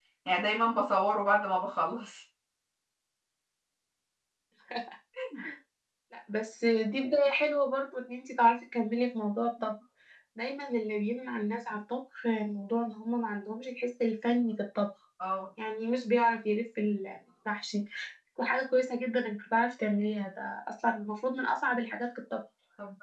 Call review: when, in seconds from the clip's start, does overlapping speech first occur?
none

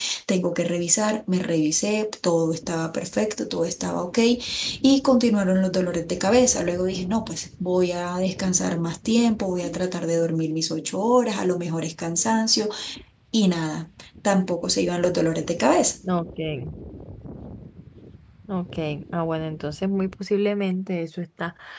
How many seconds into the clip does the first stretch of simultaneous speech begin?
none

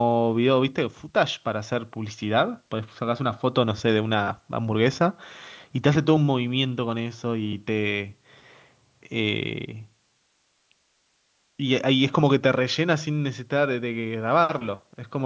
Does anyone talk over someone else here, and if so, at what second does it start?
none

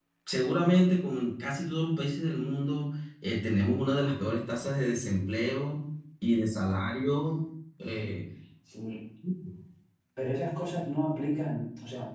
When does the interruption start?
none

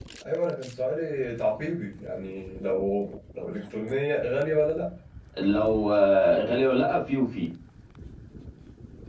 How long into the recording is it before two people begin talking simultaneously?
none

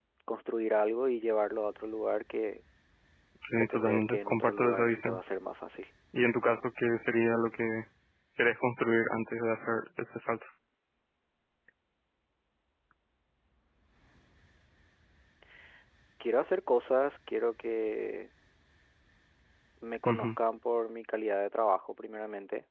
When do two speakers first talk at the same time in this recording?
4 s

